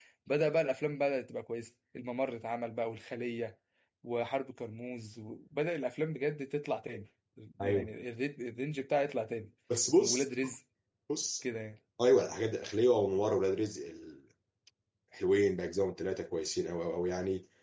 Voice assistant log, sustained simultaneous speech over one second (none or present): none